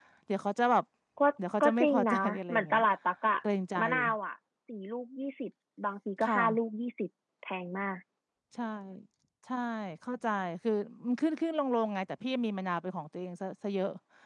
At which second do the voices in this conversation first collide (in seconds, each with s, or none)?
1.6 s